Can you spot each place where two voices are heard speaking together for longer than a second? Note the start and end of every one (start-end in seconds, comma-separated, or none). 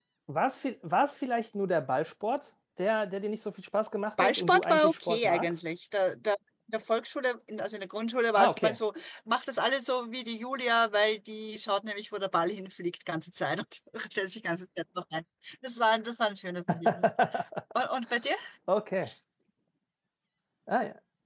4.2-5.6